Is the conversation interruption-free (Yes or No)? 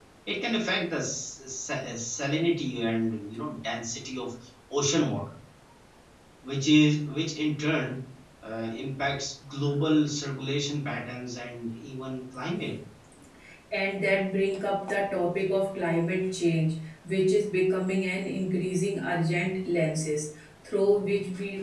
Yes